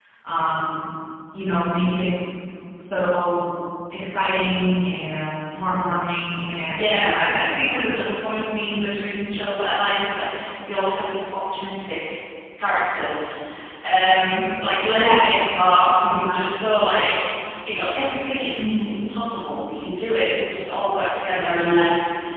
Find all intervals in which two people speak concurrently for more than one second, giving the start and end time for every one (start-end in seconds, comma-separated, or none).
6.7-8.1